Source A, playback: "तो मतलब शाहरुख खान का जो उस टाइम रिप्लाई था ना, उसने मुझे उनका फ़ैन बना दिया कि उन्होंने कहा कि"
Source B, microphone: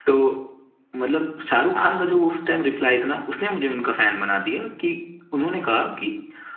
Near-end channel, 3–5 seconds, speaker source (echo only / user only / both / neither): echo only